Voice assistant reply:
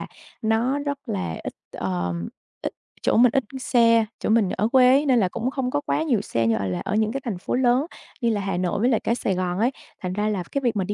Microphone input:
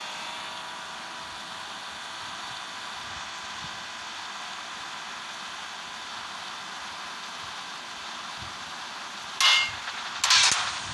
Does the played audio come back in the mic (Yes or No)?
No